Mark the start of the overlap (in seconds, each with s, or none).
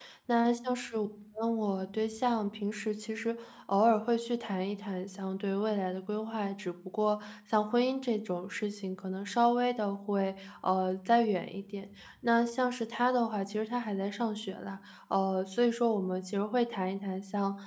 none